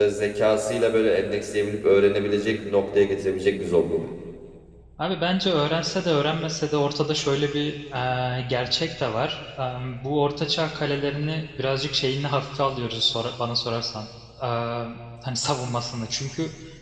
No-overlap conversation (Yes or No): Yes